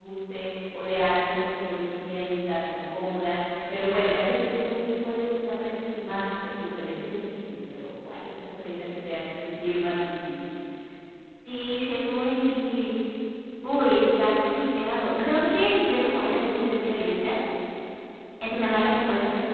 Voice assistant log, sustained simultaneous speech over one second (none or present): none